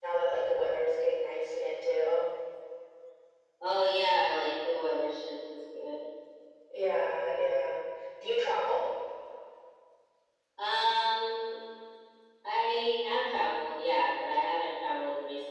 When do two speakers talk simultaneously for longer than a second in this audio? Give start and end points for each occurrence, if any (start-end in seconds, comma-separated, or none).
none